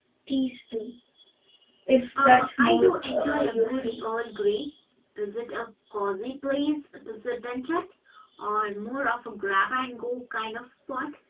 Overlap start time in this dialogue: 2.2 s

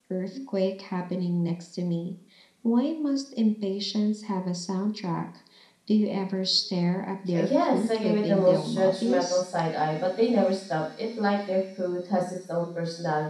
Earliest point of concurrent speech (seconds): 7.3 s

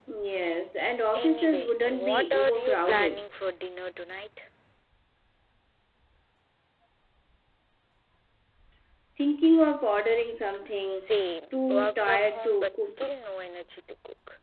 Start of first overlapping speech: 1.1 s

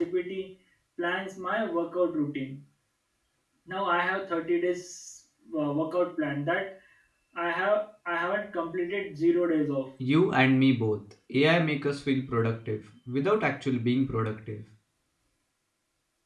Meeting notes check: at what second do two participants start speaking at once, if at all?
none

